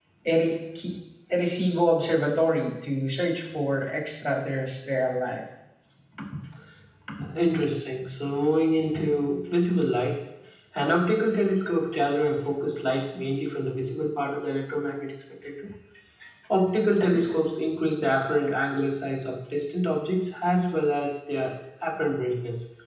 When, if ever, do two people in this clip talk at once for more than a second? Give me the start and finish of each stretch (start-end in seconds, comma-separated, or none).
none